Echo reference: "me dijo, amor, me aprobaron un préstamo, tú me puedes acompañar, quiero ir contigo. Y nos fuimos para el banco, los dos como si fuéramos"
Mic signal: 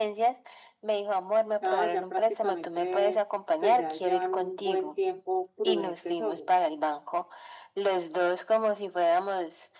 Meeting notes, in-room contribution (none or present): present